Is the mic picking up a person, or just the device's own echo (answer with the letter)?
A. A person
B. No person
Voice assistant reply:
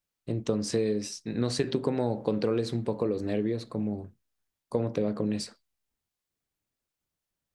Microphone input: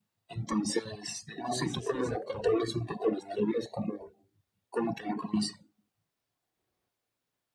A